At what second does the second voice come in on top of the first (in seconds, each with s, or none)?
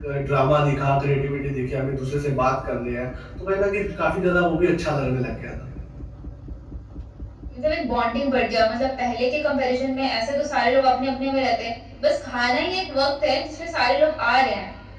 none